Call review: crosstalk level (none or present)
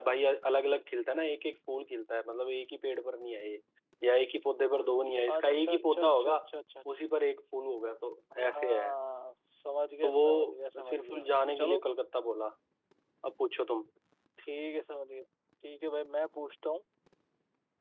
present